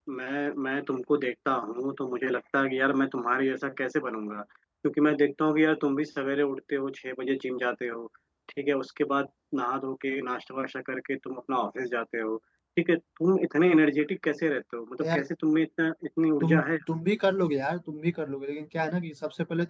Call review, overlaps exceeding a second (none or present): none